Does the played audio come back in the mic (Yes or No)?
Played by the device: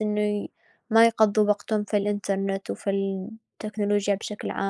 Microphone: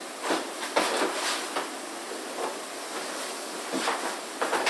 No